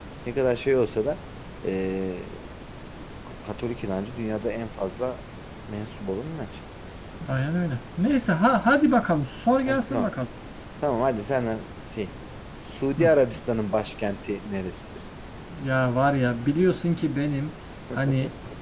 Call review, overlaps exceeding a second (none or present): none